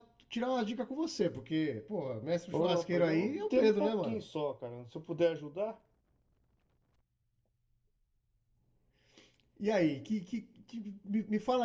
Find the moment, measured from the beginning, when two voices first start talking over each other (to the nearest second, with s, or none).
3 s